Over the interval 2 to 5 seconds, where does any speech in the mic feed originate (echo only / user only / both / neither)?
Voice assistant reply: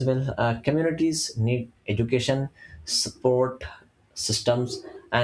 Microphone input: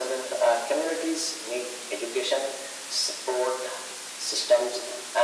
echo only